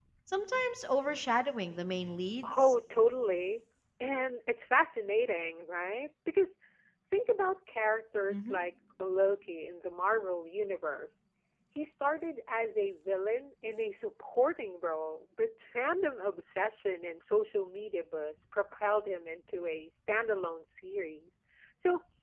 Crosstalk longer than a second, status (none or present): none